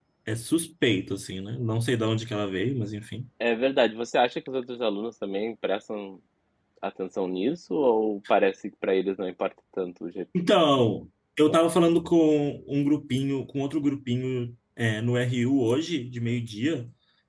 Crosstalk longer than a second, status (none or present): none